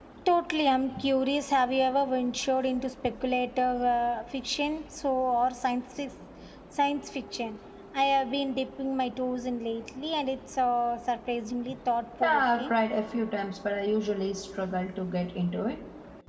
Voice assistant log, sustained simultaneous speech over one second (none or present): none